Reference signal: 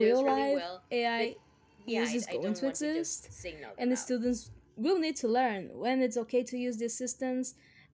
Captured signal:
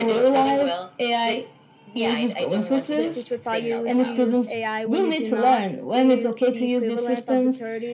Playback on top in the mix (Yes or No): Yes